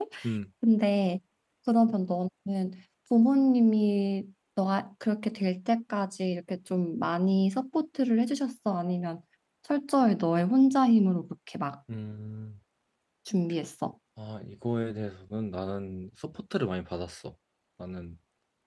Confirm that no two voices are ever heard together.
Yes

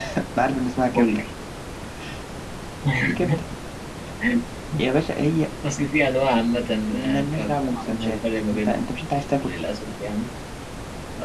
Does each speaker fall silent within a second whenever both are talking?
No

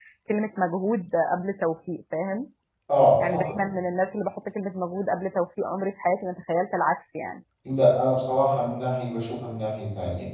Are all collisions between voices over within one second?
Yes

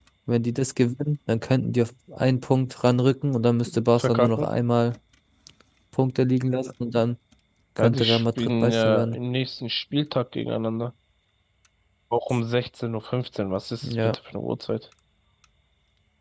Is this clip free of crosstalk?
No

